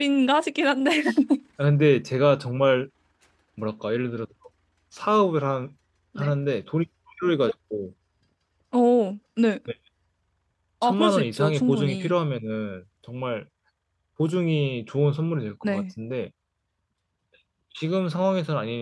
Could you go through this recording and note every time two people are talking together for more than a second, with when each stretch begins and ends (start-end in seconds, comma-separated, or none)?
10.8-12.1